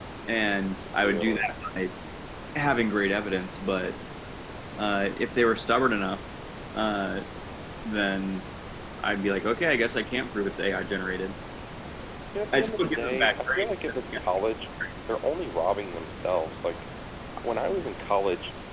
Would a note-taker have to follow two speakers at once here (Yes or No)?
Yes